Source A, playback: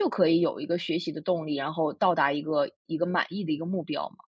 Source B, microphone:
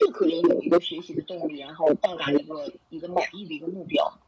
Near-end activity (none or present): none